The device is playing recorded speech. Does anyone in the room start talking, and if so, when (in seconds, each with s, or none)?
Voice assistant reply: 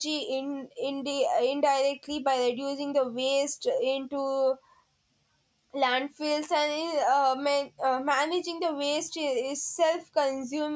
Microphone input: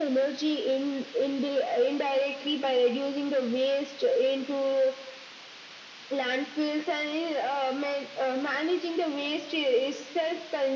none